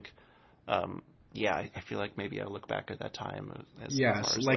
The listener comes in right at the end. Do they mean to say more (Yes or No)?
Yes